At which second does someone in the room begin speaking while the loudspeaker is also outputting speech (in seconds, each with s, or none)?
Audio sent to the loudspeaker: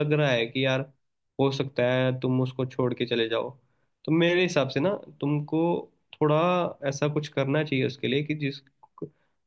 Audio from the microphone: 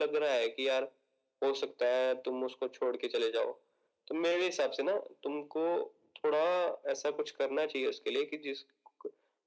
none